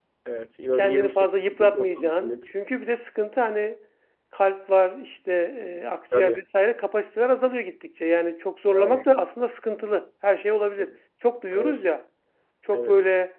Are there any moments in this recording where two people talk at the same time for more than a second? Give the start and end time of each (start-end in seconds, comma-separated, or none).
0.8-2.4